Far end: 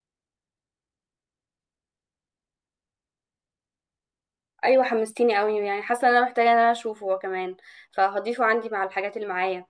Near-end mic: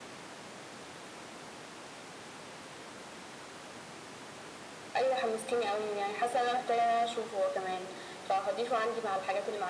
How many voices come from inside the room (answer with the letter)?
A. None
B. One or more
A